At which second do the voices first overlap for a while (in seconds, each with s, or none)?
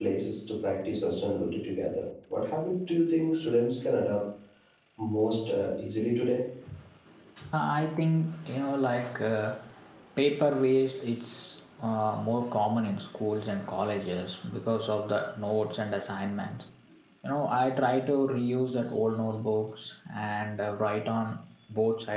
none